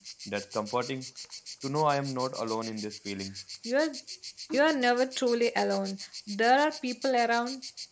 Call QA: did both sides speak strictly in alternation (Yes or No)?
Yes